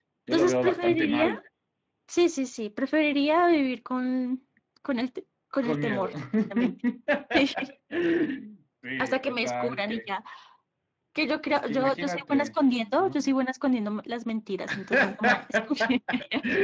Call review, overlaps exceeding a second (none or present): present